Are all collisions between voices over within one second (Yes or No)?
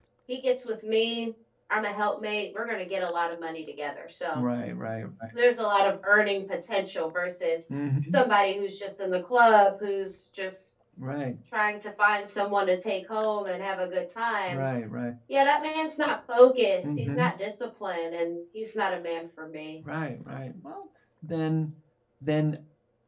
Yes